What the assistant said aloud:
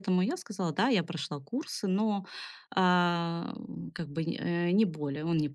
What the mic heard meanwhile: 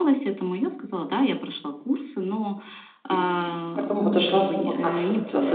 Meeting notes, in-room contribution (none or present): present